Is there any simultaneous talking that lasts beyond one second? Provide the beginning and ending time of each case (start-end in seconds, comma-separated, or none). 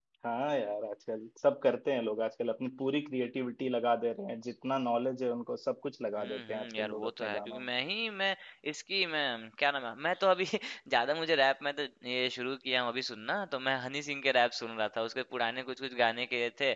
6.2-7.6